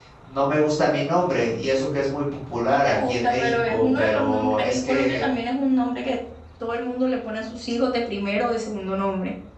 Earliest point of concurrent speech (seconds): 3 s

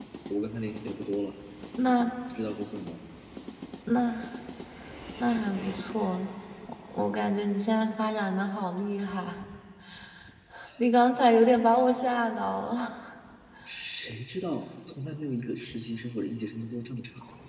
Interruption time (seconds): none

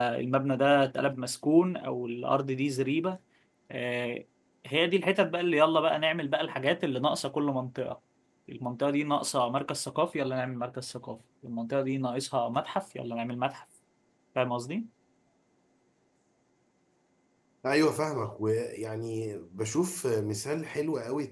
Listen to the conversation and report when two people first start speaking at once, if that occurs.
none

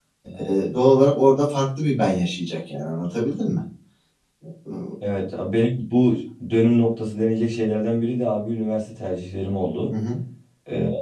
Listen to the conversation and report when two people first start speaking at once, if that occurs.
none

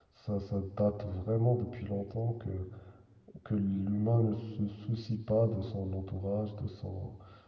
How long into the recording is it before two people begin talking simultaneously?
none

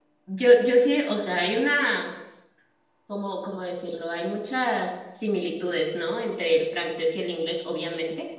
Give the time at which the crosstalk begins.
none

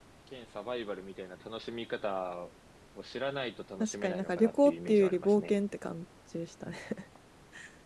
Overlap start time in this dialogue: 4 s

